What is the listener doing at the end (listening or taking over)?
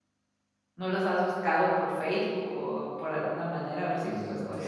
taking over